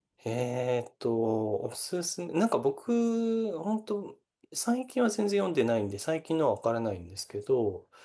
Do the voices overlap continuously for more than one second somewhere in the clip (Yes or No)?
No